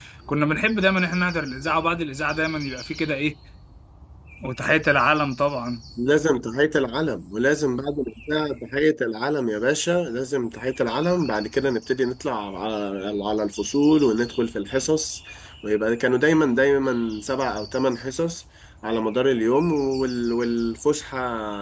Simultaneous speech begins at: none

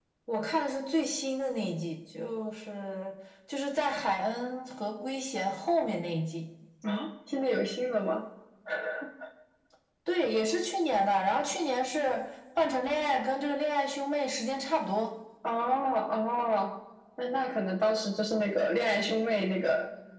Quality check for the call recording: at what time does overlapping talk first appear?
none

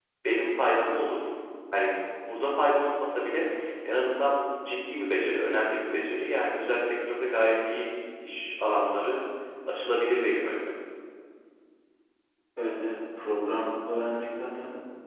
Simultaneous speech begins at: none

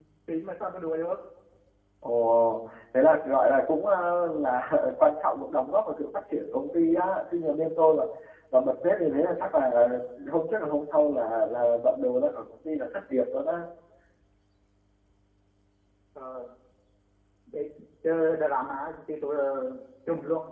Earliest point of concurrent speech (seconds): none

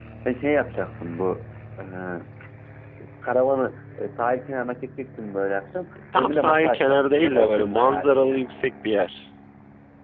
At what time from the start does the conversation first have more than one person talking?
6.1 s

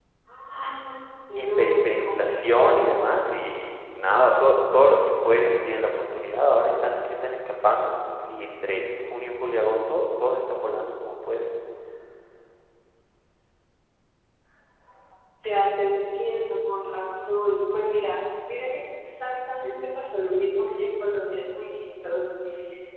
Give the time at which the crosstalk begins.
1.4 s

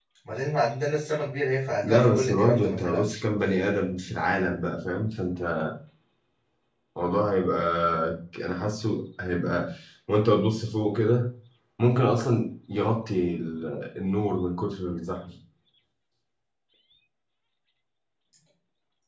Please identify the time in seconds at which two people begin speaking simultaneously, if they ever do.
1.8 s

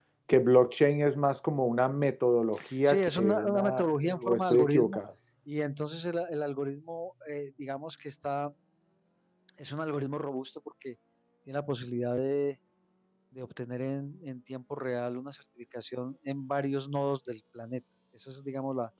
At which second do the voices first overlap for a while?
2.8 s

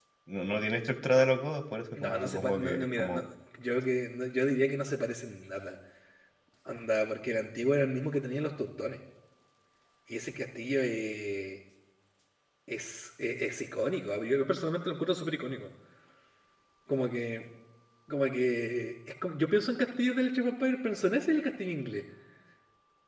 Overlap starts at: 2.0 s

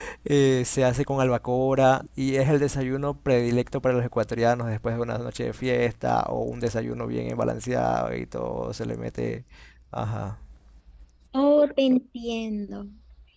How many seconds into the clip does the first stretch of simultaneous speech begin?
none

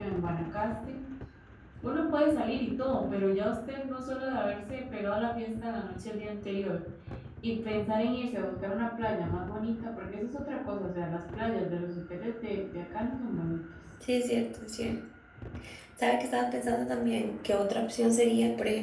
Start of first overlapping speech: none

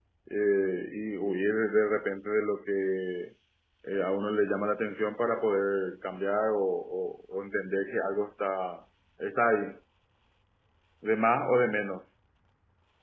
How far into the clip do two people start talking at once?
none

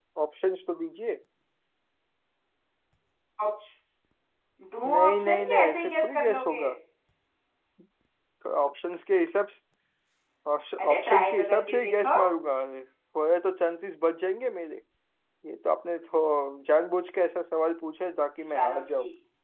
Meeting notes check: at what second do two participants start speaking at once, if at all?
4.8 s

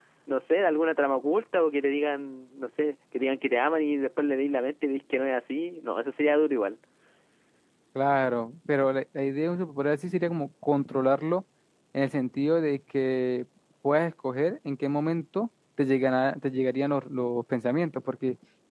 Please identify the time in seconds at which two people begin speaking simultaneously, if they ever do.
none

